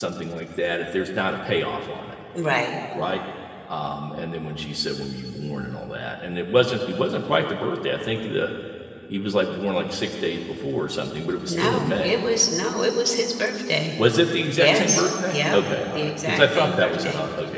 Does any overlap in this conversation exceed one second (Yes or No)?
Yes